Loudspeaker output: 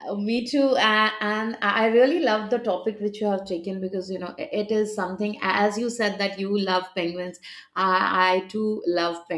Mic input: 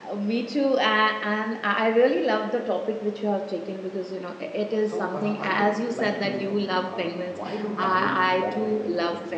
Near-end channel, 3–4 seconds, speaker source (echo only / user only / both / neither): echo only